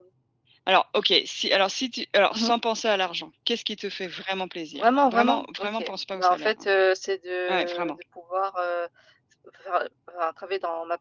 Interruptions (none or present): present